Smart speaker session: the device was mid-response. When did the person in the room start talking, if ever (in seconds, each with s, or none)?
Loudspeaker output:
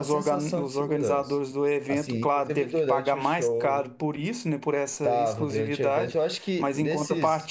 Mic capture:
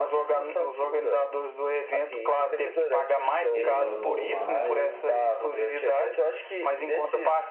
3.5 s